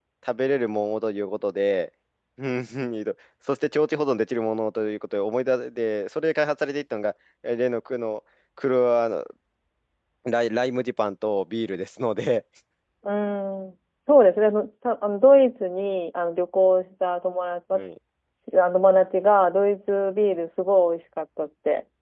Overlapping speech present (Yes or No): No